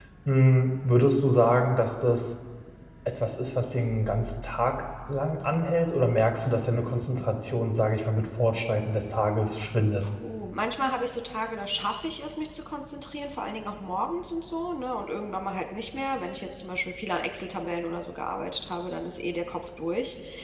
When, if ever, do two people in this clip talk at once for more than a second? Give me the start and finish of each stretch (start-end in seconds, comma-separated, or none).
none